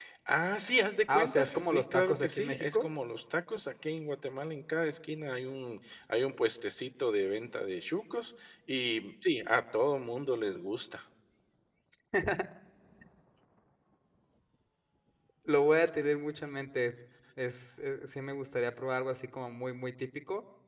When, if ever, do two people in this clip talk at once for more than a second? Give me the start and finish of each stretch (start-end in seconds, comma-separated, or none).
1.1-2.9